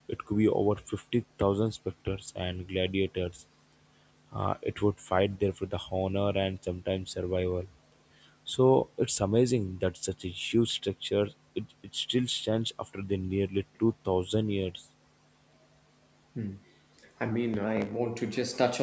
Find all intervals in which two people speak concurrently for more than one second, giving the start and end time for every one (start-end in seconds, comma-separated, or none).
none